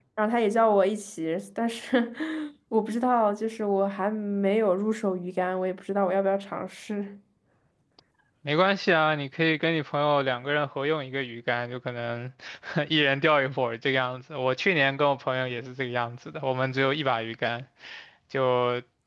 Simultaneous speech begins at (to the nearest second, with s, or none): none